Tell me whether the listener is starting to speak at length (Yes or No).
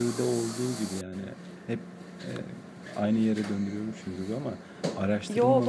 No